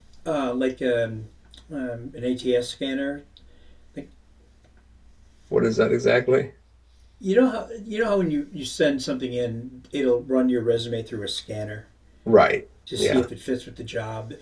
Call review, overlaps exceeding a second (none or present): none